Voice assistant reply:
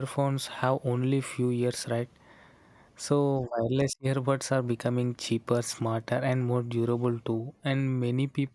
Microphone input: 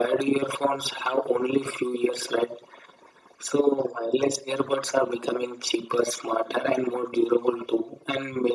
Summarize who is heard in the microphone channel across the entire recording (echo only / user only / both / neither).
echo only